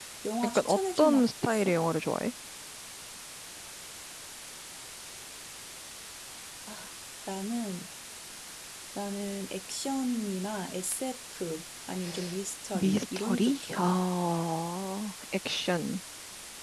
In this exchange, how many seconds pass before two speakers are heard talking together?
1 s

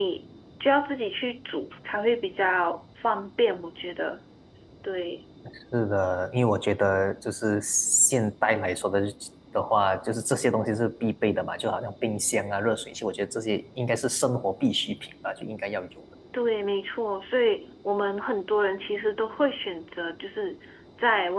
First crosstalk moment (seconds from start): none

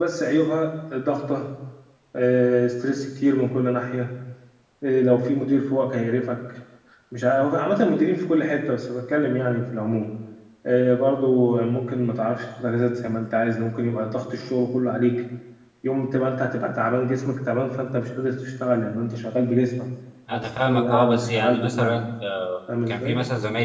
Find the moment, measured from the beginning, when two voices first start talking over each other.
20 s

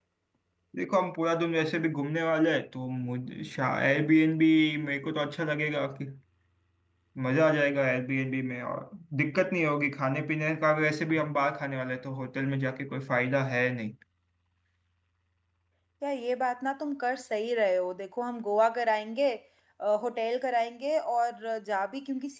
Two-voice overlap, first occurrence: none

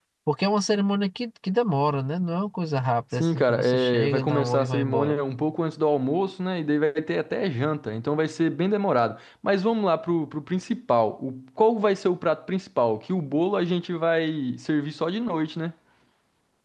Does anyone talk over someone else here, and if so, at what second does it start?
3 s

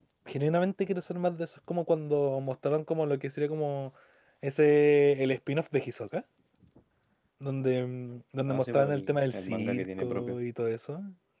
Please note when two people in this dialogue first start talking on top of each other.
8 s

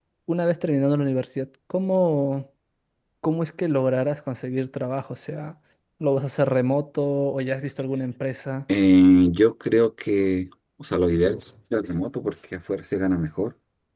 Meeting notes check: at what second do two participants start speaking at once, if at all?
none

